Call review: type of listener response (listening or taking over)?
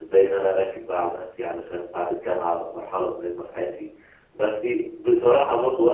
listening